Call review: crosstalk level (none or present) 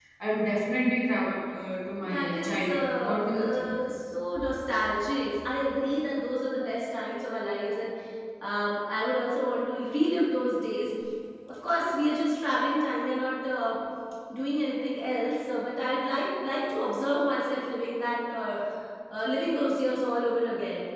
present